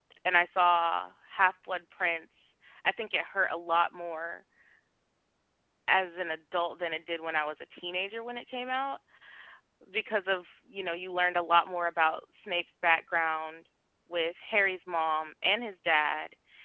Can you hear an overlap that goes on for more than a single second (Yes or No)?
No